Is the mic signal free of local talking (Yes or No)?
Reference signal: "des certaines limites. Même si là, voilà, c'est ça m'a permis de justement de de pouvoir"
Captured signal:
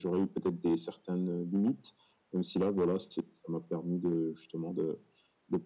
Yes